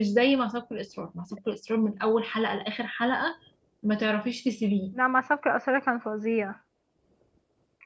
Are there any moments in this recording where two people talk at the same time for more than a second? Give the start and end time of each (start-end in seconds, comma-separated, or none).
none